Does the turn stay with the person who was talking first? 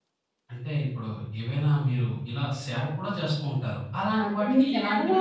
No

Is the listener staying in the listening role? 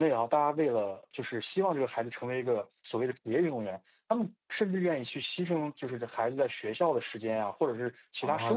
No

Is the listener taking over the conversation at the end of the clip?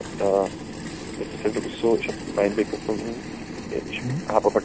No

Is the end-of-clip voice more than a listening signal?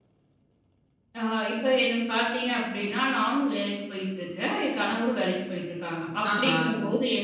No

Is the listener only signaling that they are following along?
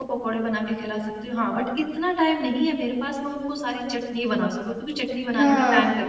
Yes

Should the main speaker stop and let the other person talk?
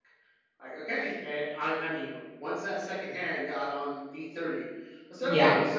No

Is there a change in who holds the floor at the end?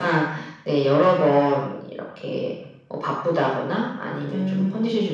No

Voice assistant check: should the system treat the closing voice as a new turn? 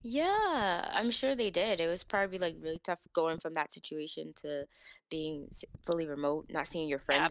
Yes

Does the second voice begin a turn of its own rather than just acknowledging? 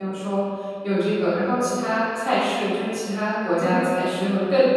No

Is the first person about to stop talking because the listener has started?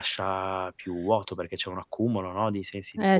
Yes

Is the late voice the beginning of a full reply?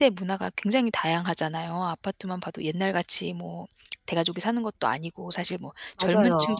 No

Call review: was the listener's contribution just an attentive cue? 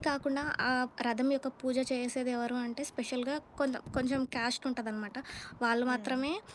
Yes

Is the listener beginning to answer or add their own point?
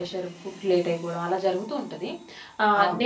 No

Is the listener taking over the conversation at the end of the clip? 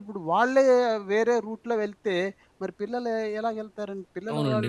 Yes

